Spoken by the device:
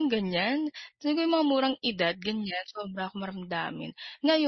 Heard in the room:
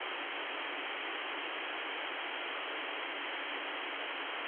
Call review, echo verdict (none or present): none